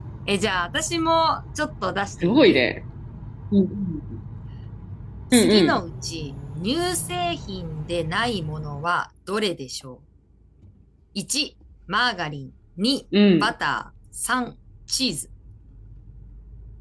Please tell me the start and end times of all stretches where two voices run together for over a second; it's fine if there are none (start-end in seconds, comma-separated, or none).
none